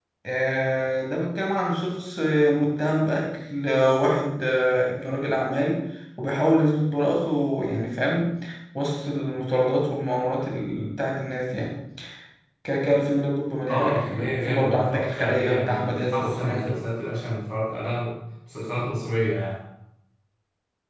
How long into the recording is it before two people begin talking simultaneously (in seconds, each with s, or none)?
13.7 s